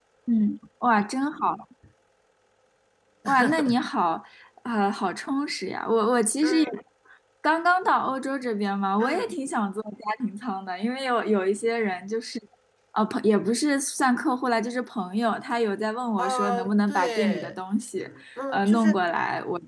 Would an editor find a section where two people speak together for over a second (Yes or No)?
Yes